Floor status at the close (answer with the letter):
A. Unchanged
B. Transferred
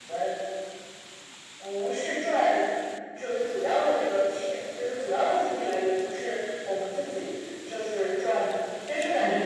A